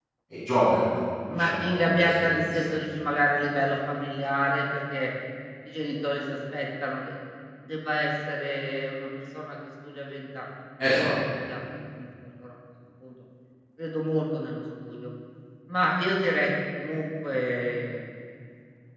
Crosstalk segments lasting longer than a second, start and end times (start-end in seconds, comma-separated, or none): 1.3-2.6